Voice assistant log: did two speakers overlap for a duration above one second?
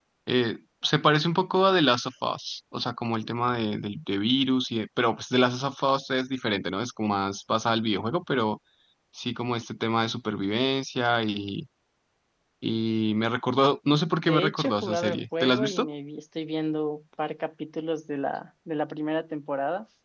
Yes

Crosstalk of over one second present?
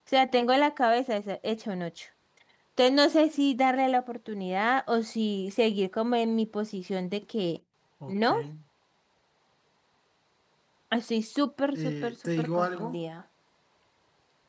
Yes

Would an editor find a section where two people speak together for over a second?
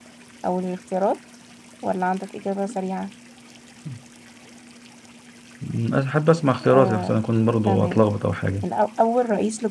No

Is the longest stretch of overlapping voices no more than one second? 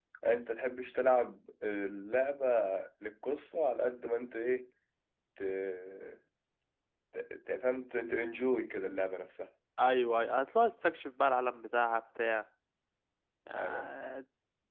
Yes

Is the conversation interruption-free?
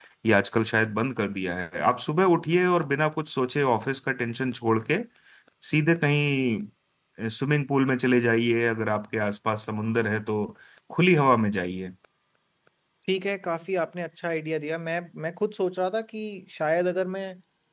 Yes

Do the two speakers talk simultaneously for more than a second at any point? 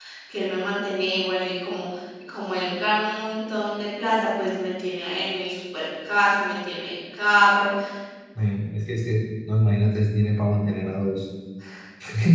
No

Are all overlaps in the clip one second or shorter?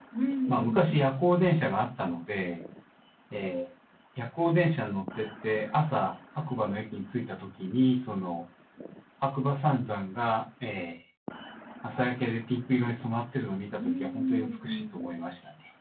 No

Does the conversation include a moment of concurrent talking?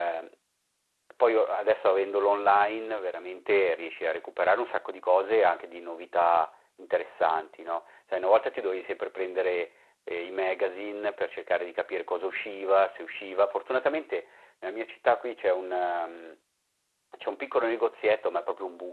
No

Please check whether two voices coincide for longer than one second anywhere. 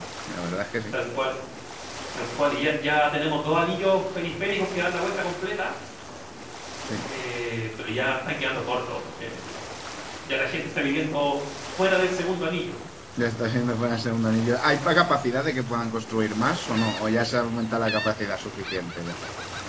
No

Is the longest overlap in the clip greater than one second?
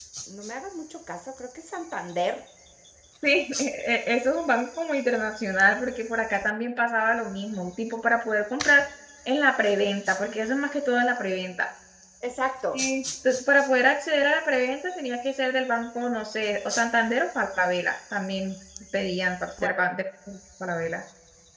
No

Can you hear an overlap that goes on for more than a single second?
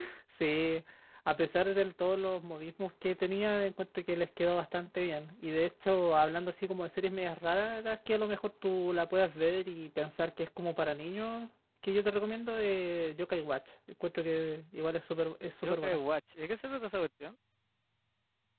No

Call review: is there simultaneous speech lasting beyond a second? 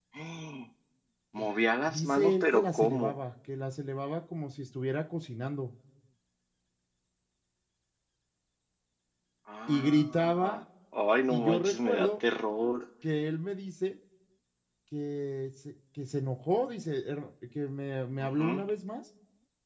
Yes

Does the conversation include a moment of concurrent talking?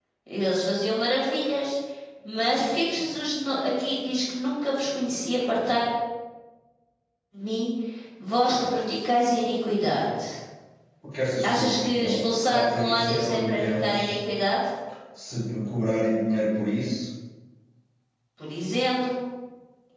Yes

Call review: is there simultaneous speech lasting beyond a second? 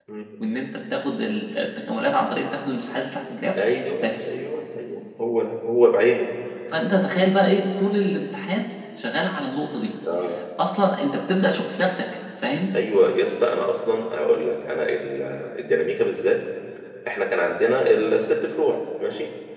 No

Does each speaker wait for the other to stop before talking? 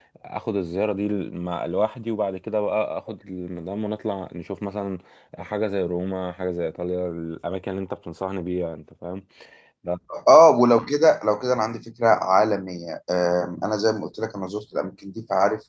Yes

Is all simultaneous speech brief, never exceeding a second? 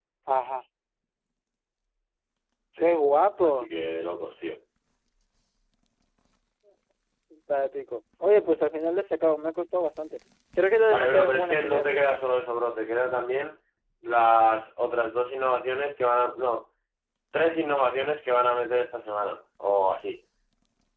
No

